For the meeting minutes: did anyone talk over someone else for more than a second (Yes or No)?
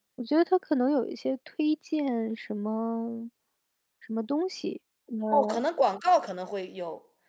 No